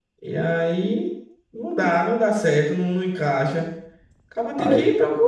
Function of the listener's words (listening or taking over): listening